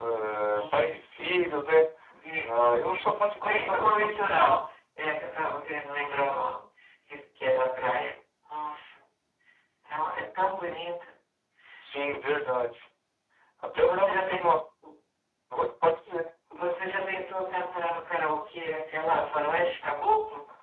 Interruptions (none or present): present